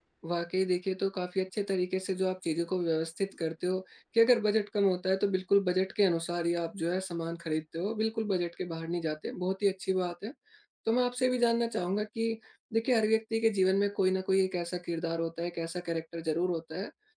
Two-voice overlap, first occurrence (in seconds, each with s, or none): none